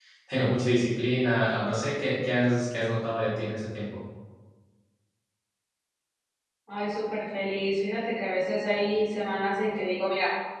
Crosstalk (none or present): none